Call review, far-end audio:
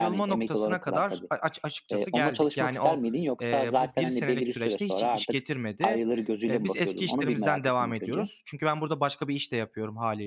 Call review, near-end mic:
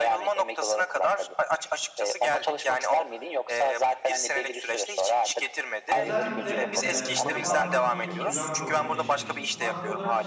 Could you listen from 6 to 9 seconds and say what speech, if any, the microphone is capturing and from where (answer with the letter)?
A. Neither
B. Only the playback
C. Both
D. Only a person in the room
C